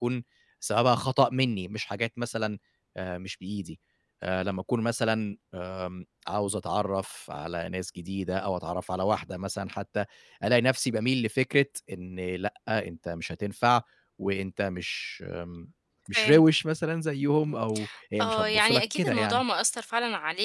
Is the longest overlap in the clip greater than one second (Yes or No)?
Yes